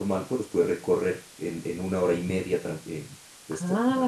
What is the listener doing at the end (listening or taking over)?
taking over